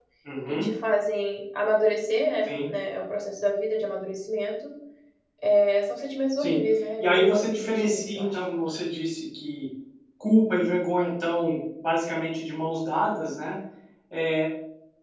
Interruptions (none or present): present